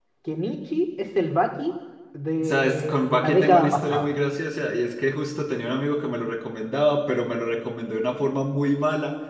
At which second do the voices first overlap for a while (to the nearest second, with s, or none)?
2 s